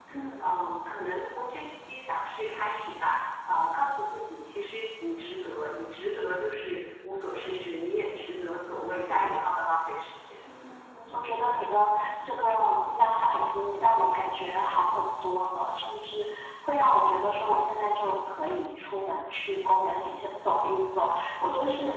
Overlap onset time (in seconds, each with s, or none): none